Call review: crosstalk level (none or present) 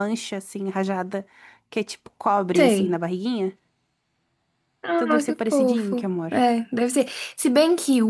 present